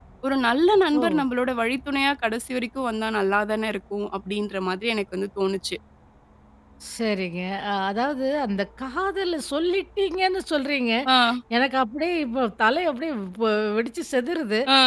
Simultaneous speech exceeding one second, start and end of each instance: none

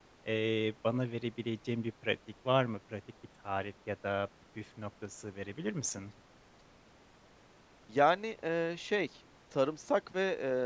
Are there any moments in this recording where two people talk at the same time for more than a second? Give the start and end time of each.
none

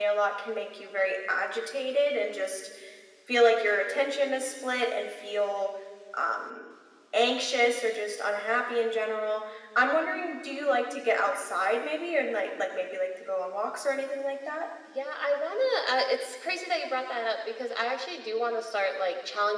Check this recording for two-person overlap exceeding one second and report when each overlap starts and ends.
none

